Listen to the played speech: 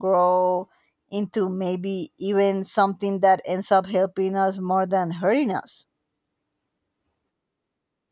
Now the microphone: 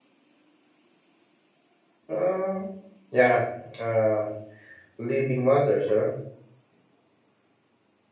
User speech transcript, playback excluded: Uh, yeah, uh, living matters, huh?

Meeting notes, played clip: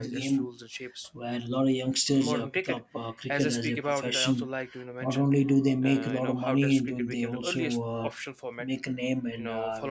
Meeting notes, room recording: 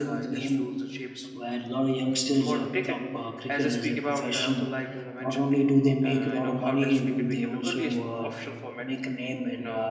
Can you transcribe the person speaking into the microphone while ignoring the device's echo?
none

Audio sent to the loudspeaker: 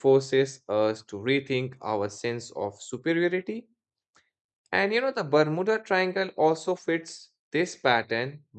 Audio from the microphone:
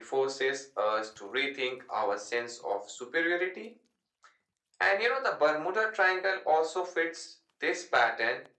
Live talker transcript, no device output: none

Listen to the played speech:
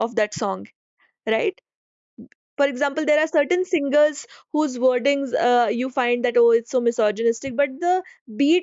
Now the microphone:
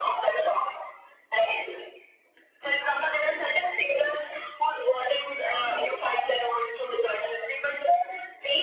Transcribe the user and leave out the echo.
none

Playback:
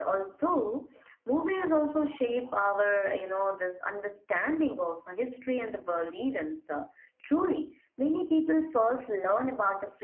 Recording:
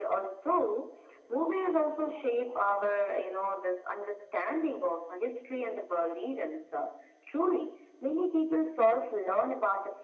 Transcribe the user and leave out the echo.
none

